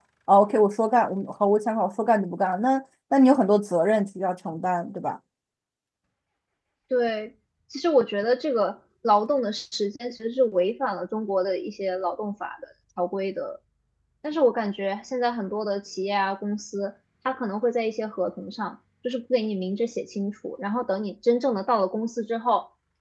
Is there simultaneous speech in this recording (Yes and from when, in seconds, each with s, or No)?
No